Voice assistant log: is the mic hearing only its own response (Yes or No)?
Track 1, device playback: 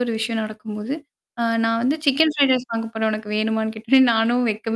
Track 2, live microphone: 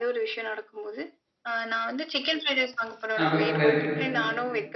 No